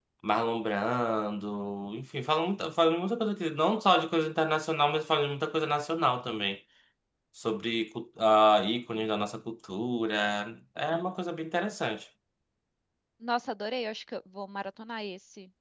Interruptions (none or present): none